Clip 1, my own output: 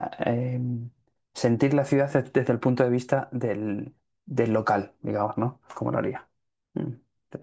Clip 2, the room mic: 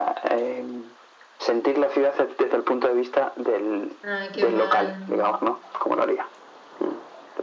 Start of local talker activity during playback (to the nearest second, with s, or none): 4 s